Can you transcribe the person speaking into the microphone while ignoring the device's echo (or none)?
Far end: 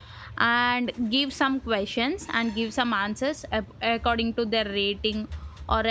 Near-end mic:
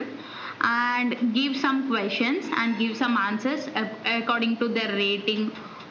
none